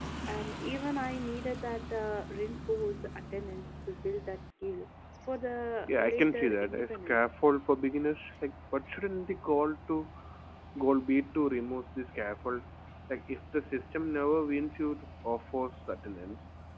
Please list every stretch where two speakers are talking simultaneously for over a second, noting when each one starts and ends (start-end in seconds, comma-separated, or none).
5.8-7.3